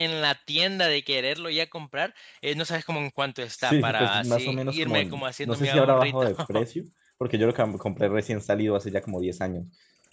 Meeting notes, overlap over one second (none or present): present